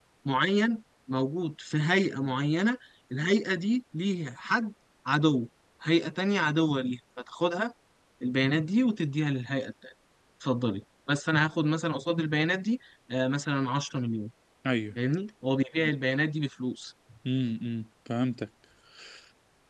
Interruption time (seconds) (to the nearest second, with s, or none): none